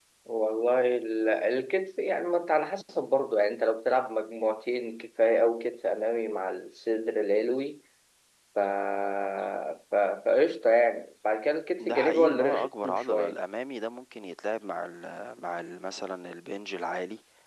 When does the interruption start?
11.8 s

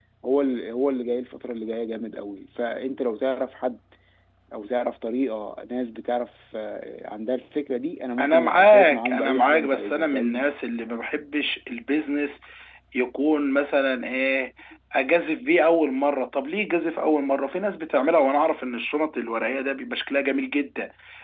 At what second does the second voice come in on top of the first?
8.2 s

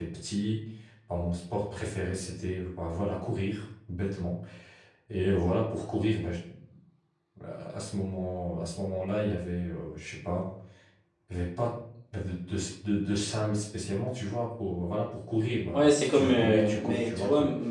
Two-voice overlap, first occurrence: 15.7 s

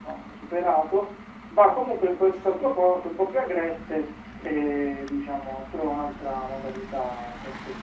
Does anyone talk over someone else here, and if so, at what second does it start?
none

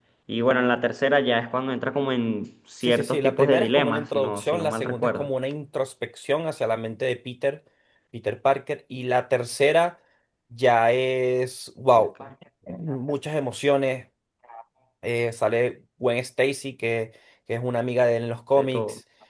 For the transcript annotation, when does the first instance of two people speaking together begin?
2.8 s

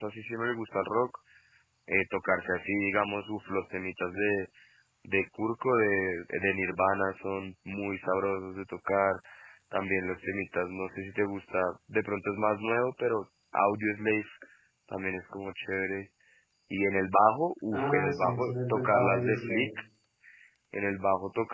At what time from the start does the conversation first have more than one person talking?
17.7 s

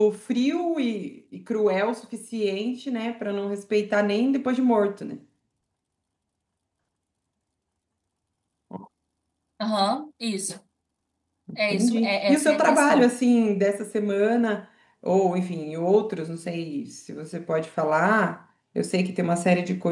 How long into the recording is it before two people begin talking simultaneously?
11.7 s

